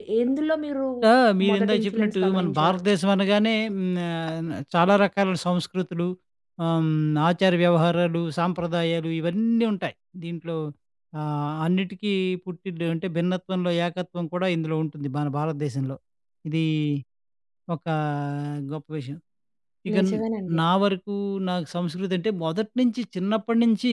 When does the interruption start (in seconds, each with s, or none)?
1.5 s